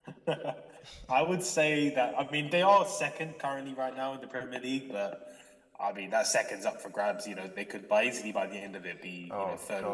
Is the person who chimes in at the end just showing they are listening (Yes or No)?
No